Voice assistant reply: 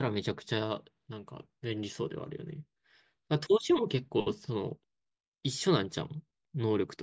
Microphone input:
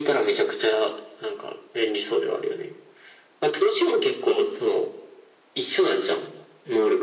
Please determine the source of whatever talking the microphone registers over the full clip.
echo only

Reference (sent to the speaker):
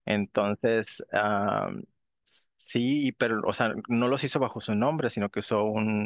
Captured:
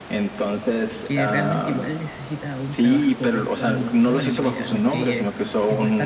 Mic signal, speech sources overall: both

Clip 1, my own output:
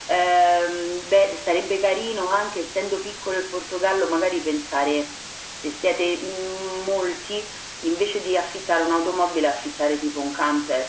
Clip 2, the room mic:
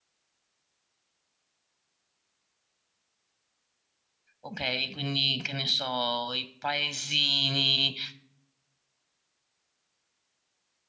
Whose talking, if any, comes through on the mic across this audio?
user only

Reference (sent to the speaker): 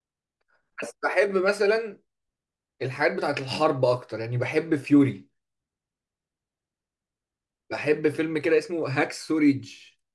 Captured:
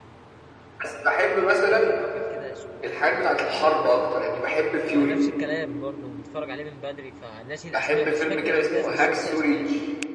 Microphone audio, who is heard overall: both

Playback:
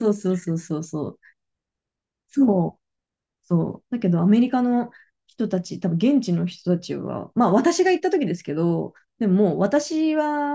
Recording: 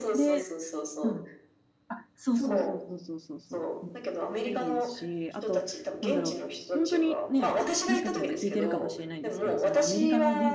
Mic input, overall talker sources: both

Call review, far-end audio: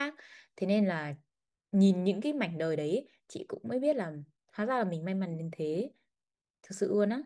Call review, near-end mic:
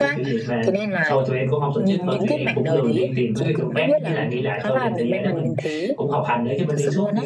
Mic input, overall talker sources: both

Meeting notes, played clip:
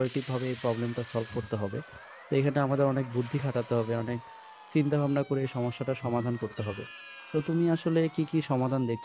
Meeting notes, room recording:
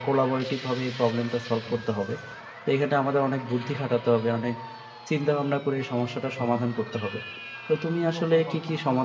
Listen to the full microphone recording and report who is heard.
both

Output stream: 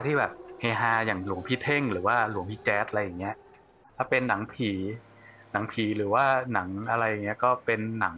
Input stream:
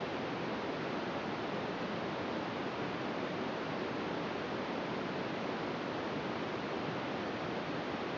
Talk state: neither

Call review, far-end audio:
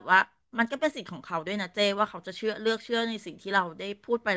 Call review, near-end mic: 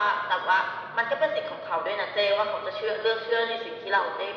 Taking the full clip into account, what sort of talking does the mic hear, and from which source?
echo only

